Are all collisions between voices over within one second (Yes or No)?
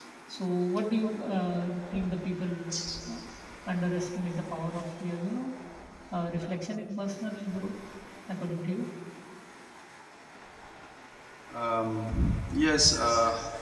Yes